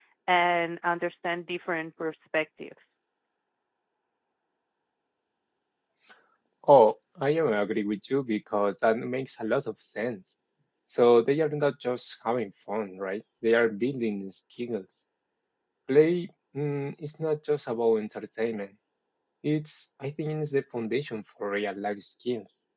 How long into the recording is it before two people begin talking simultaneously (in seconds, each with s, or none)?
none